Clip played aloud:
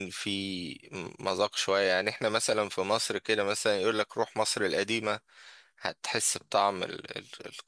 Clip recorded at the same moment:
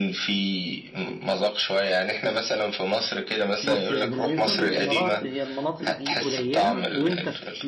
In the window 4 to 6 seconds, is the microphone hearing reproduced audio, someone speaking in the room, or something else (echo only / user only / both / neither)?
both